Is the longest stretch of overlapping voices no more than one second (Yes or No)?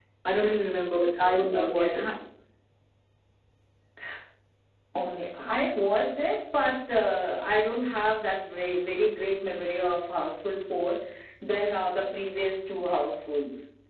Yes